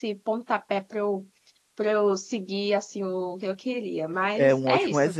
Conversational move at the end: taking over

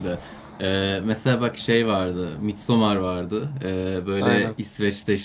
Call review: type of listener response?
listening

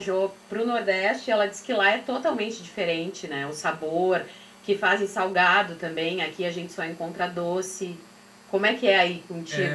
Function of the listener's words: taking over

